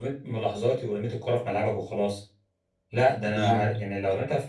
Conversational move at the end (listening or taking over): listening